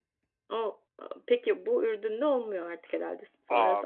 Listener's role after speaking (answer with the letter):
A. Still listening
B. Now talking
B